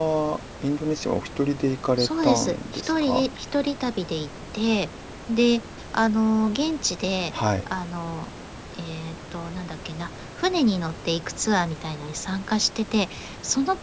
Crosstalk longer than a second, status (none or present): present